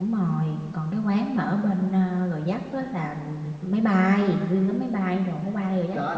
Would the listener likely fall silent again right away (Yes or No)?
No